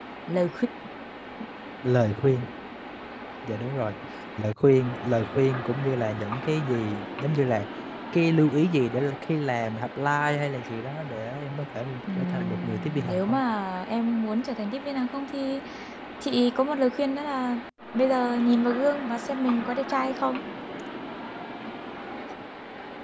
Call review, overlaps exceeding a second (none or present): present